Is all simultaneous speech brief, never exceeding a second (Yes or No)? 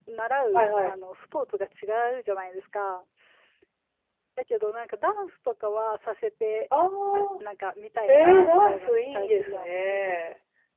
No